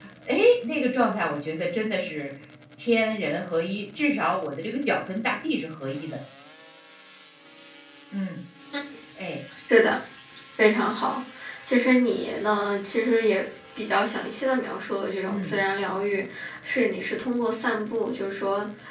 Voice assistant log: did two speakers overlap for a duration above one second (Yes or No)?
No